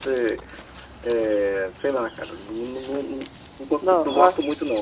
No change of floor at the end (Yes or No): Yes